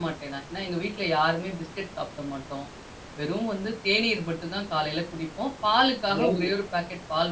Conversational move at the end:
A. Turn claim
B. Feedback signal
B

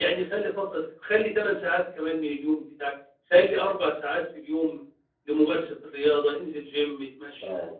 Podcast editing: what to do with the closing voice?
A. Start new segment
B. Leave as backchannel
B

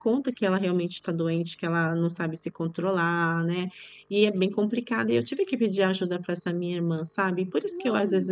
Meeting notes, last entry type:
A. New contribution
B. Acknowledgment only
B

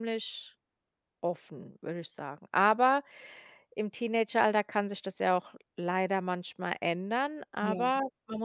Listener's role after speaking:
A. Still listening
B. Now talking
A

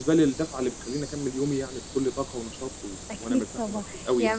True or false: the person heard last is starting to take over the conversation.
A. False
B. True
B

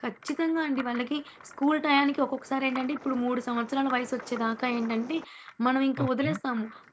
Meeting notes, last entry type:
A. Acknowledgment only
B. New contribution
A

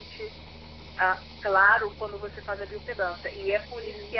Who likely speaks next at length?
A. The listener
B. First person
B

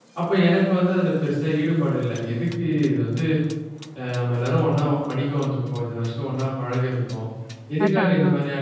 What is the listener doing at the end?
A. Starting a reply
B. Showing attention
B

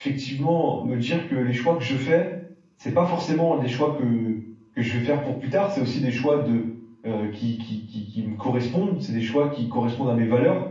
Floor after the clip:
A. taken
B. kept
B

